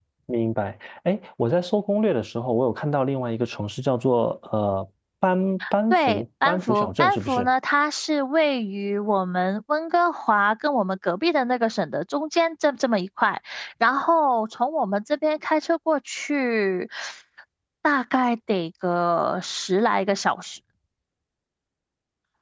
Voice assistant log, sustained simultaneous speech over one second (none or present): present